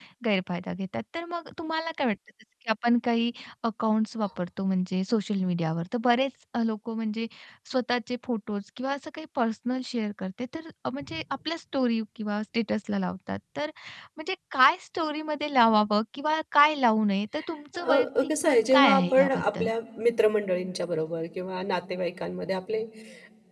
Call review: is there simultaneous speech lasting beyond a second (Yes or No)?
Yes